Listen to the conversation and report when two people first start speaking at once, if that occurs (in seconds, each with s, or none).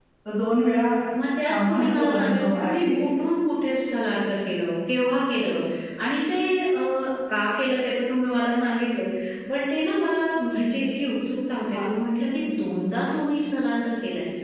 1.7 s